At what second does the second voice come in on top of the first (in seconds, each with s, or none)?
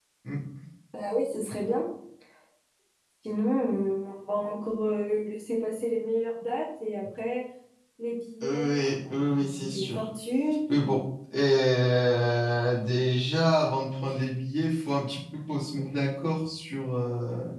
8.4 s